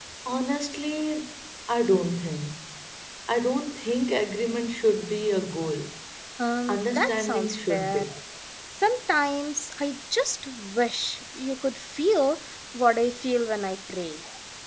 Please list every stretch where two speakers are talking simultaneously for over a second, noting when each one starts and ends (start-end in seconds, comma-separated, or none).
6.7-8.0